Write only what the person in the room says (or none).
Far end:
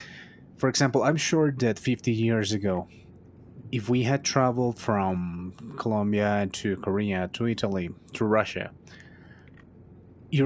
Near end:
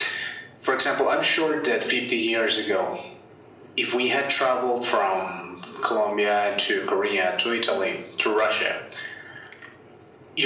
none